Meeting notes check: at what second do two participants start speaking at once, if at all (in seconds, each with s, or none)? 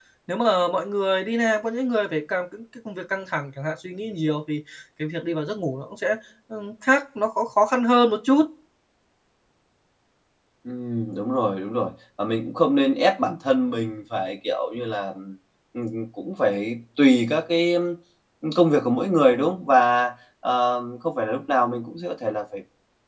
none